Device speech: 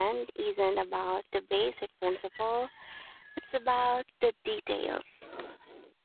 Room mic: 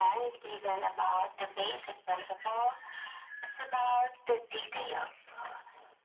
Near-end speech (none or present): none